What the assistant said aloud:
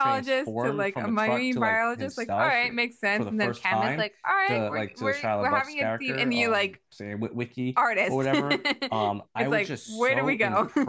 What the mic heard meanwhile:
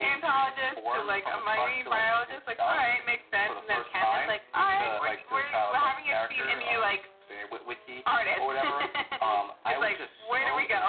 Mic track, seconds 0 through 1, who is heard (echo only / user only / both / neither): echo only